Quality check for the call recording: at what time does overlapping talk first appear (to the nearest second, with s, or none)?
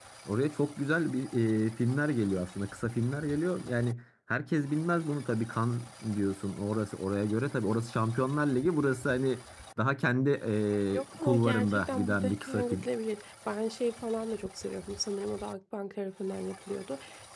11 s